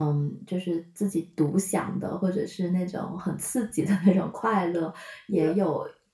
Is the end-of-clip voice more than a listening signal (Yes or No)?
No